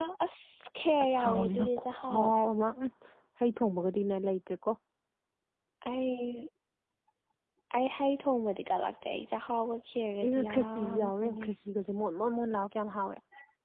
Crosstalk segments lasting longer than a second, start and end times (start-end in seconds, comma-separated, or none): 1.0-2.3, 10.2-11.5